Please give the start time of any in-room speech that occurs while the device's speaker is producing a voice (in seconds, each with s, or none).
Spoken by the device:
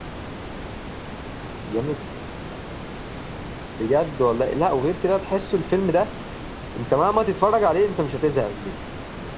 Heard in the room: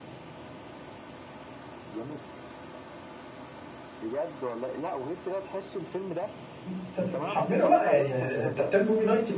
6.7 s